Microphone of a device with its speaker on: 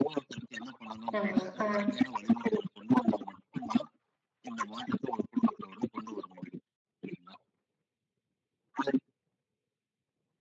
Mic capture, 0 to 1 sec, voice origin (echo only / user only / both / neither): echo only